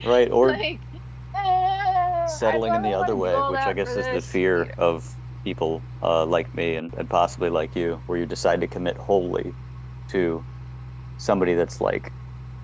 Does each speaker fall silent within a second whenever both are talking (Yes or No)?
No